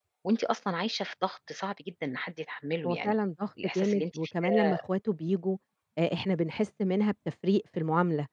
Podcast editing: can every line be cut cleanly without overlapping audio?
No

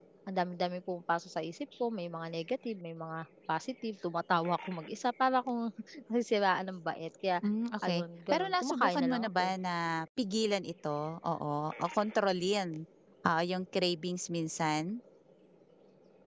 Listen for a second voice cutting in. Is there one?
Yes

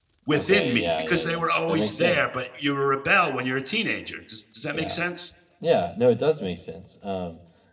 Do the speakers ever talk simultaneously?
Yes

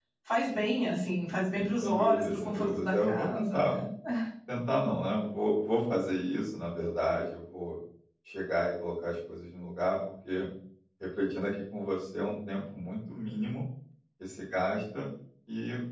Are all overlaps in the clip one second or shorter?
No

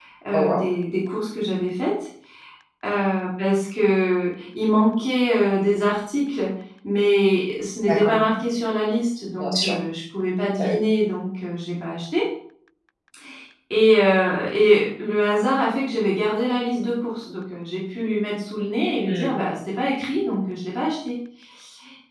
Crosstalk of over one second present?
No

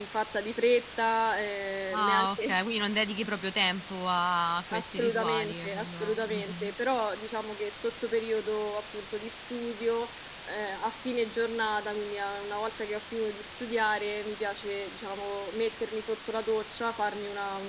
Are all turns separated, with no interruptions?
No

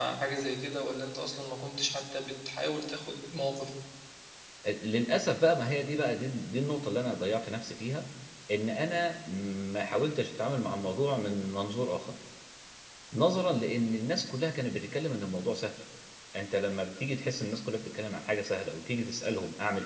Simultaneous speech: No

